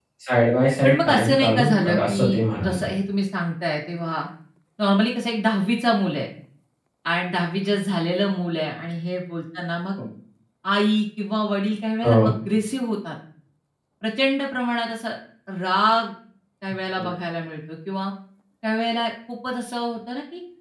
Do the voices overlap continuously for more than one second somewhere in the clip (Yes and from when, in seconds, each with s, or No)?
Yes, from 0.8 s